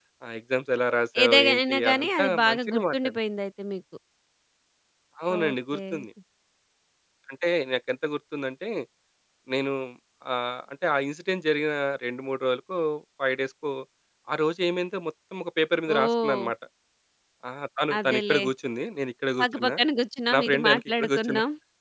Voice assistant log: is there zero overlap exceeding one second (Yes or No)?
No